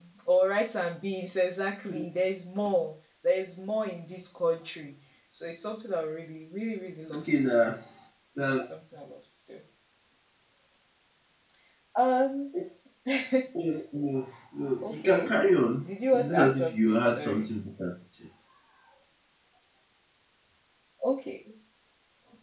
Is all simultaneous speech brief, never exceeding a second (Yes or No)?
No